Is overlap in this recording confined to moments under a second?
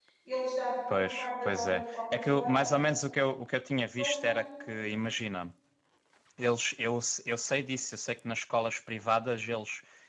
No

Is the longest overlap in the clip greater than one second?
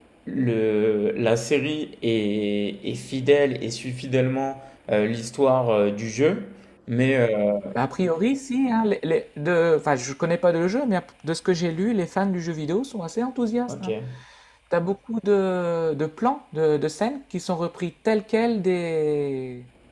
No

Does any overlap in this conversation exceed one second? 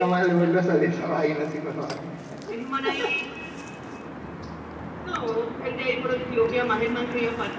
No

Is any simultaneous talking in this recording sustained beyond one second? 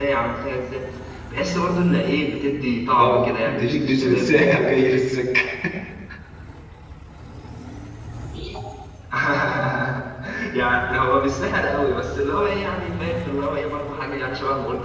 Yes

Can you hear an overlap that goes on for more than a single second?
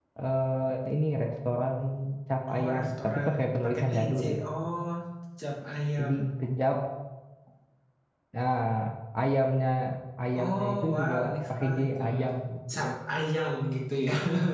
Yes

